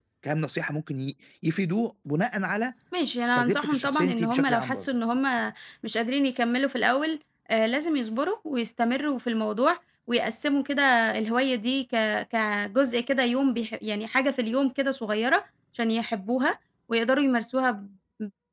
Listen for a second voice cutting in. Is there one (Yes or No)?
Yes